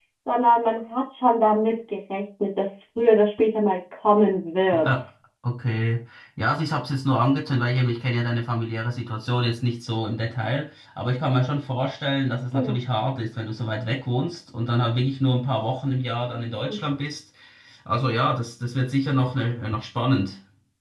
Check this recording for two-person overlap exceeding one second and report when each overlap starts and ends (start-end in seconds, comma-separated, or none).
none